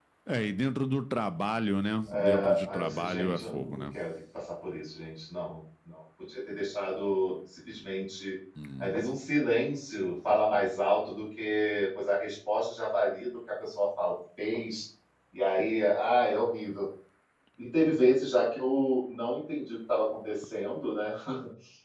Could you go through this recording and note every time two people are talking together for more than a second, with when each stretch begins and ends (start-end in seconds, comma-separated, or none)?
2.1-3.8